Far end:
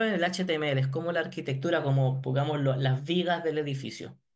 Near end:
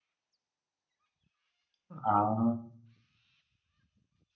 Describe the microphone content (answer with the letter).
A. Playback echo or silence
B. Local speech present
B